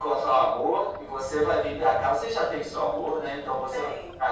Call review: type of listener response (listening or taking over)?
listening